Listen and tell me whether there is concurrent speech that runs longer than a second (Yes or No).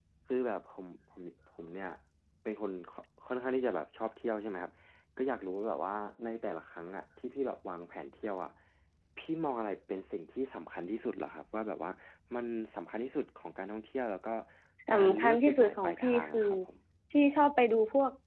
Yes